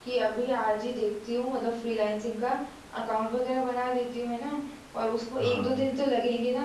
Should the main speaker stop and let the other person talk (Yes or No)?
No